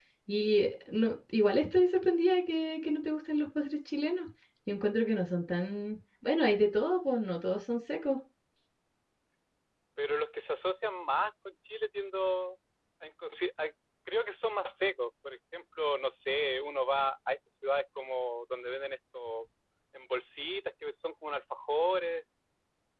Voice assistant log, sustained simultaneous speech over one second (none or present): none